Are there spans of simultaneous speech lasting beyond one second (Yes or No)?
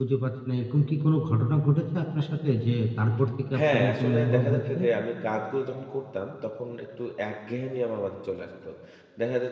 Yes